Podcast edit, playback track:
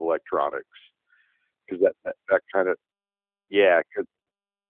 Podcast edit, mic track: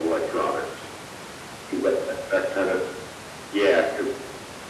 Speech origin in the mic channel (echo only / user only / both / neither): echo only